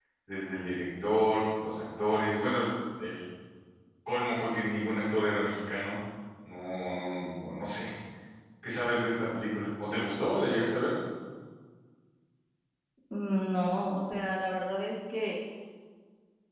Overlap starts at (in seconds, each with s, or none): none